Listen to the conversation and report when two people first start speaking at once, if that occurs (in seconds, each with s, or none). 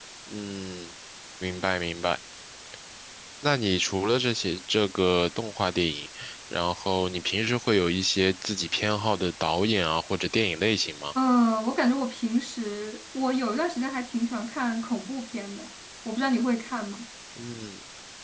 none